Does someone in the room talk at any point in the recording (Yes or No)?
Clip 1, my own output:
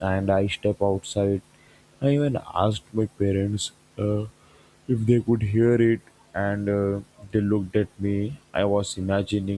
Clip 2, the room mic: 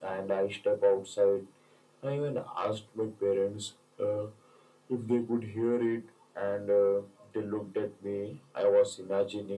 No